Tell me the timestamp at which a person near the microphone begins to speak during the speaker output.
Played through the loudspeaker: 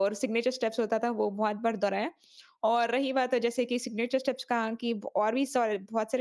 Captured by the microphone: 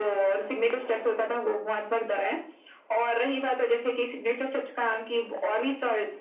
none

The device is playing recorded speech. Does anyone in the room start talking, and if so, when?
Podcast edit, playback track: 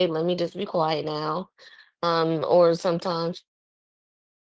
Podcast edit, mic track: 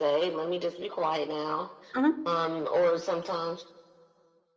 1.9 s

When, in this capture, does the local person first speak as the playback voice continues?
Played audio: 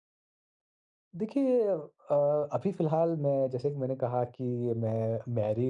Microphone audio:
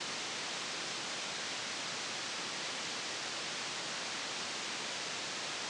none

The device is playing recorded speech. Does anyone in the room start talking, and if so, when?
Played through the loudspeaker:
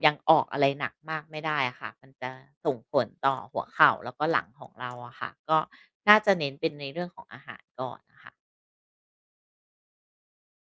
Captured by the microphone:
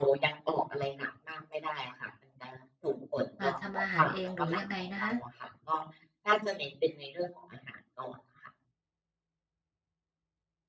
3.4 s

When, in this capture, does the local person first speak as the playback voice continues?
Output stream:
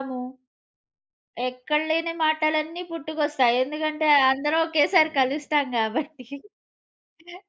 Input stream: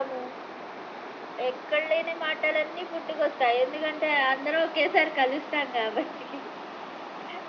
none

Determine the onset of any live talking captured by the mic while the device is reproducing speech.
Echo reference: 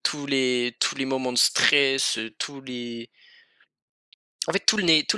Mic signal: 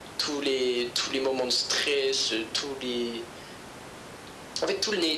none

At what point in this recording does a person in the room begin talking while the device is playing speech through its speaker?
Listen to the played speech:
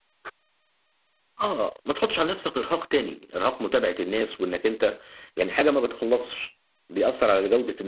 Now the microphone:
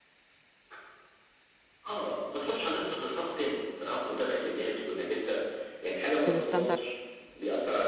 6.1 s

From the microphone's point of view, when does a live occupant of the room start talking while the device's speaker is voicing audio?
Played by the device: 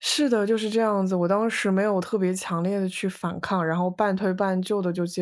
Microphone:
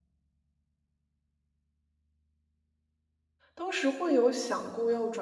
3.5 s

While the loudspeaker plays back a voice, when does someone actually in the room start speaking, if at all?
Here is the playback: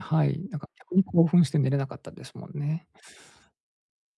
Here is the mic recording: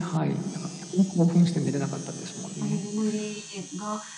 2.6 s

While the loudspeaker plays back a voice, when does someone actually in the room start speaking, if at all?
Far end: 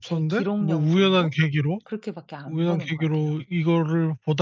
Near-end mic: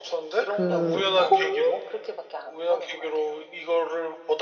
0.5 s

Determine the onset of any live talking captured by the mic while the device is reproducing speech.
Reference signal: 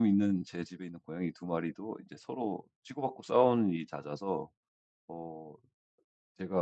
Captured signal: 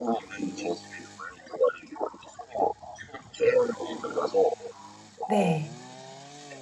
5.3 s

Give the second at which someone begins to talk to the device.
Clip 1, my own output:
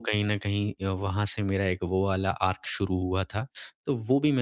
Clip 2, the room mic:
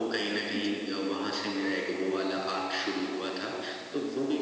0.6 s

